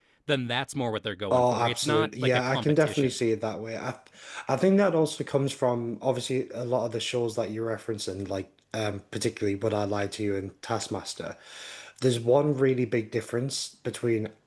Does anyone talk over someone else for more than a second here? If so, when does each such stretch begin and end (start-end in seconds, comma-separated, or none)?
1.3-3.1